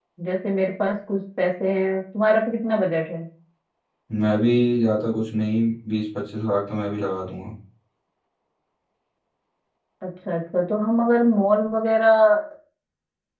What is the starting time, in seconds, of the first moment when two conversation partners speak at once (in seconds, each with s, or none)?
none